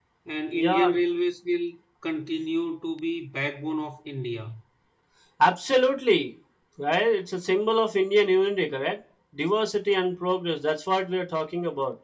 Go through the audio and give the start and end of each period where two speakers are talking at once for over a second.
none

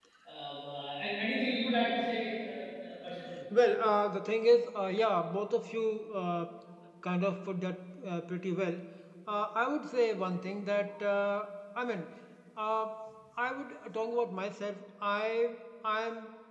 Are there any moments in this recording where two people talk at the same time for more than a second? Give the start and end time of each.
none

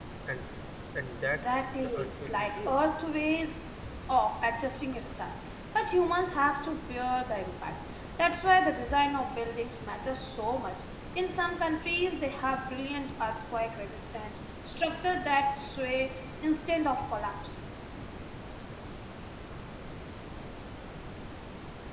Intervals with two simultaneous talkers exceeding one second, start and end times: 1.2-2.8

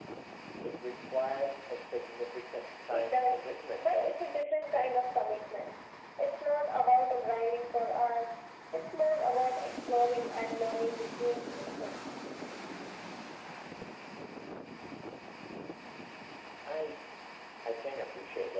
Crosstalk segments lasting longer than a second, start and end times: 2.9-4.1

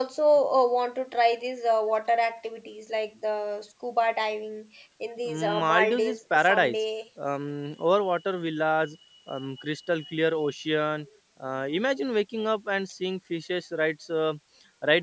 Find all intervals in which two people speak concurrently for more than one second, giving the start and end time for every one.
5.2-6.8

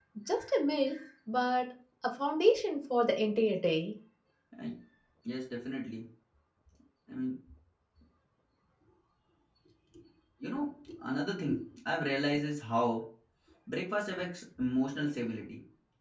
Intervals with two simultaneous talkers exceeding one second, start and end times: none

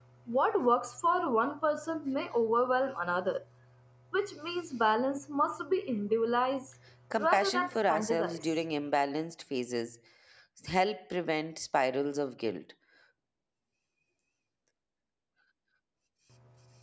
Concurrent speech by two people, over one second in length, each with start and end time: 7.2-8.4

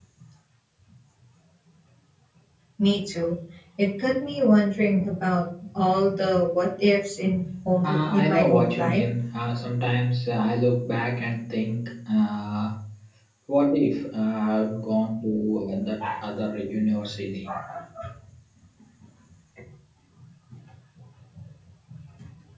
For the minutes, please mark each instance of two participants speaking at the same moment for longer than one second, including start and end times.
7.8-9.1

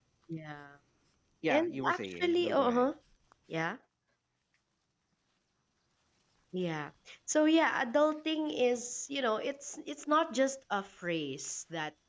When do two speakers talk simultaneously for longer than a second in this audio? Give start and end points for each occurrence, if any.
1.5-2.9

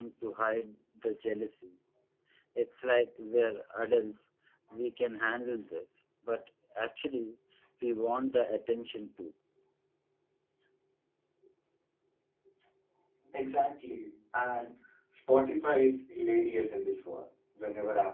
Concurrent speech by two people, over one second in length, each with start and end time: none

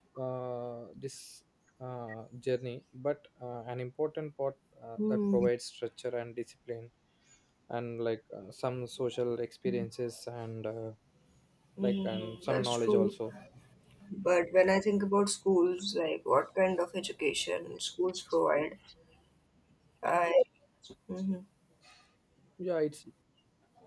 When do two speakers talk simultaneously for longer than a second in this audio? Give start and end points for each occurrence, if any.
11.8-13.2

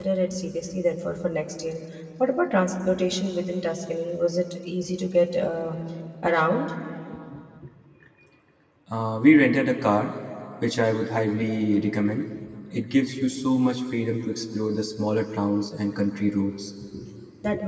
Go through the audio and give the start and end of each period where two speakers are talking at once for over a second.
none

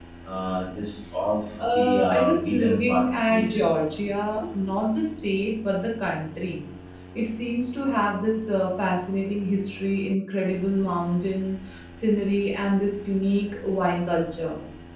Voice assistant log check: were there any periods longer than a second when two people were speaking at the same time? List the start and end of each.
1.7-3.7

